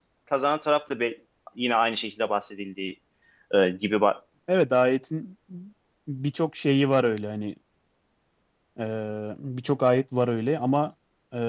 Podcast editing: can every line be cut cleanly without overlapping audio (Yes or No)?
Yes